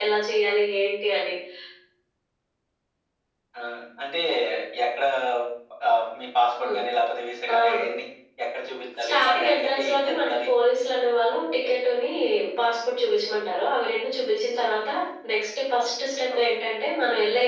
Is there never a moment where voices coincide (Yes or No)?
No